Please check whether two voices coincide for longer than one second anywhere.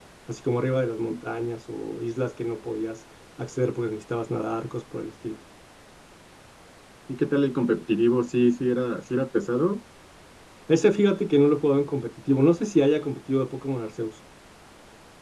No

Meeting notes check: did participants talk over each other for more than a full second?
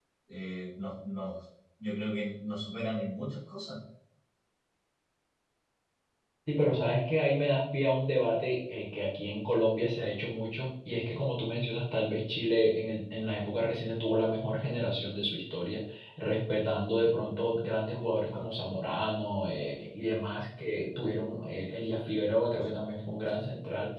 No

